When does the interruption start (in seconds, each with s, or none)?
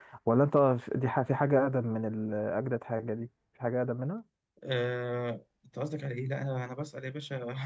none